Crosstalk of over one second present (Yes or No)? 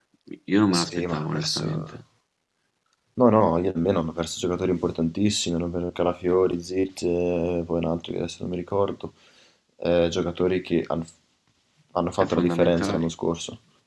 Yes